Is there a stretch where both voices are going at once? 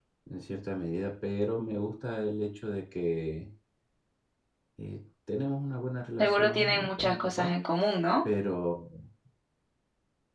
Yes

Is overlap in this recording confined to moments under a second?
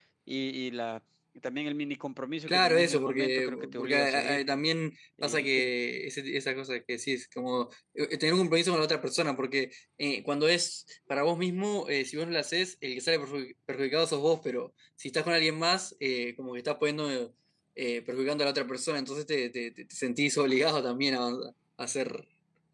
No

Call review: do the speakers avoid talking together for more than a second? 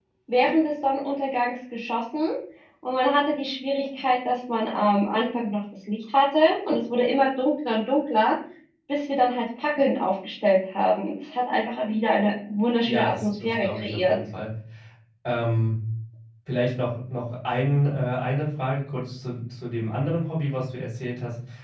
No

